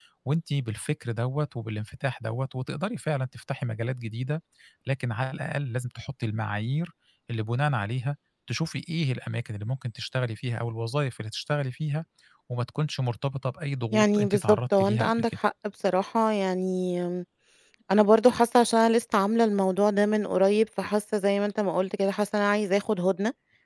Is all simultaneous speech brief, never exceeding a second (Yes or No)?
No